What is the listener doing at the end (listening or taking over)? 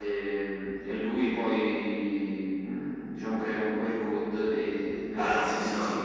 taking over